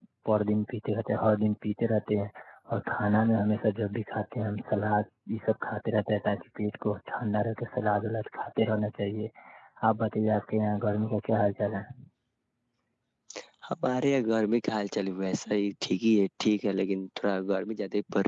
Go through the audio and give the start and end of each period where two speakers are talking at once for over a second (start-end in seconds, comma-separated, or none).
none